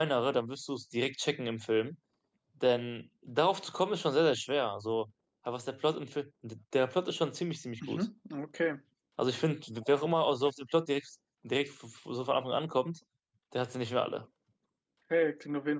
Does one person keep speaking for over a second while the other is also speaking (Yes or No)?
No